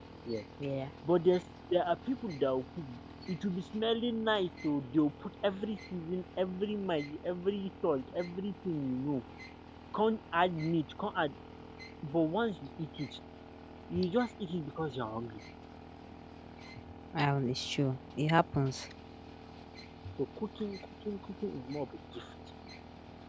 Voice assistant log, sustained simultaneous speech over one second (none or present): none